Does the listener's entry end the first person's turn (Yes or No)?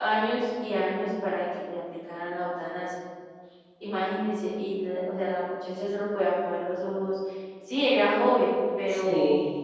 No